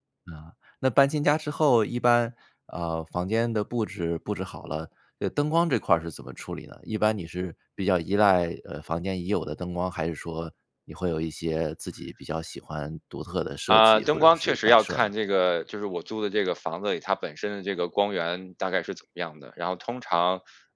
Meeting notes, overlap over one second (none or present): present